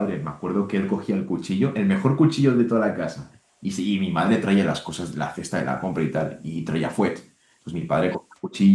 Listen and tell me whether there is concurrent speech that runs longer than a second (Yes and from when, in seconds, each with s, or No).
No